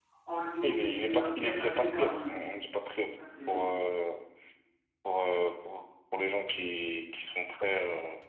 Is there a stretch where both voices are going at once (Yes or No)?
Yes